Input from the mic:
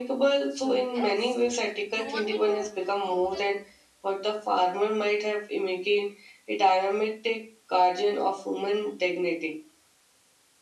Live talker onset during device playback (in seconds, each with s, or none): 0.5 s